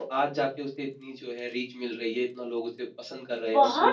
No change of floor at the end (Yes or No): No